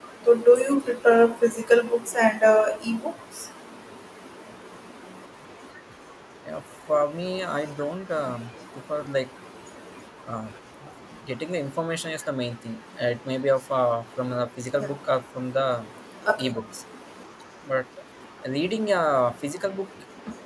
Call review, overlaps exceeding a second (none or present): none